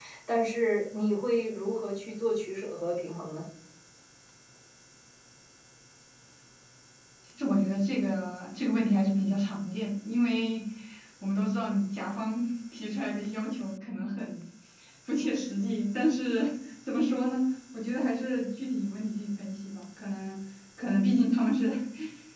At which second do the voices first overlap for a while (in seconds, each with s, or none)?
none